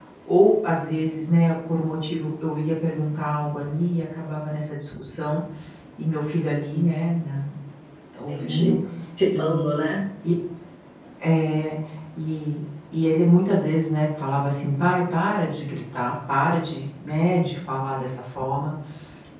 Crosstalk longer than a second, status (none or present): none